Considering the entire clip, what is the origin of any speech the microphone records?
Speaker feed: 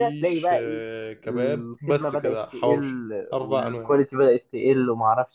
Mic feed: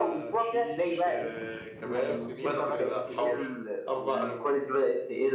both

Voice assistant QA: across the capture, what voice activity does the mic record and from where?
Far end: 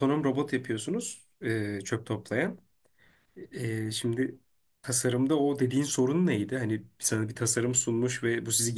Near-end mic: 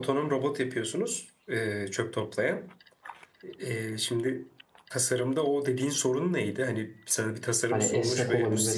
both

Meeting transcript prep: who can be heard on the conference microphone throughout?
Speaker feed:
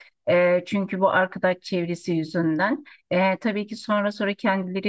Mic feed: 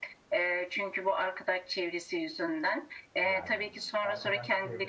both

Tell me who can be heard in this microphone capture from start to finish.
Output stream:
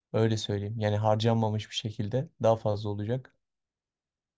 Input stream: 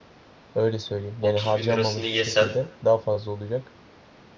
both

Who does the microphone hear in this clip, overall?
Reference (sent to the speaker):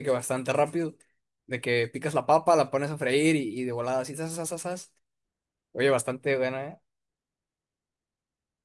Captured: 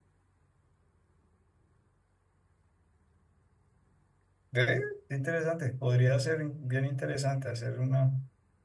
user only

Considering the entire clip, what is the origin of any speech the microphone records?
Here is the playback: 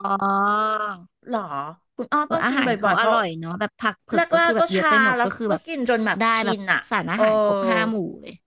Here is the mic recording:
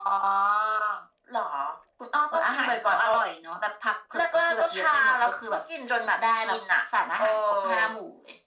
echo only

